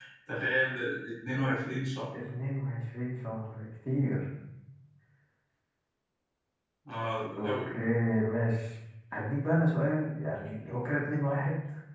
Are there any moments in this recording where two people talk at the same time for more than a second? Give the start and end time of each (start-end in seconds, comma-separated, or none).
none